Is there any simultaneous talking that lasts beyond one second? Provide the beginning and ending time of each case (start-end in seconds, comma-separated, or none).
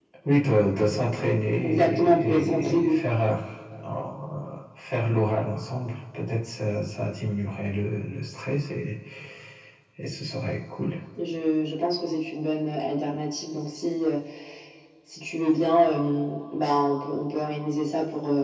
1.6-3.0